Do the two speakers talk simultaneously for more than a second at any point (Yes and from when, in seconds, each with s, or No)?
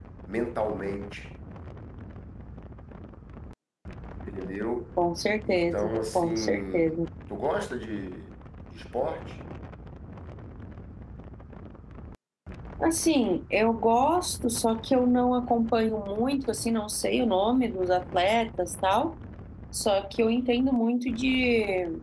Yes, from 5.4 s